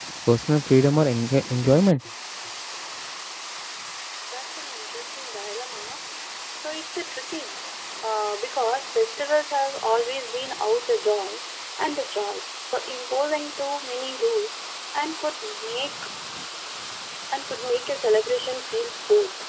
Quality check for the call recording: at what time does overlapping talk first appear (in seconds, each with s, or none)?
none